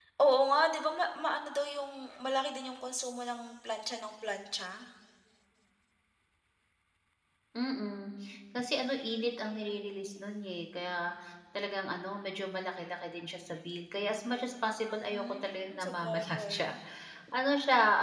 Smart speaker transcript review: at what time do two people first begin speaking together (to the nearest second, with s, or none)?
15 s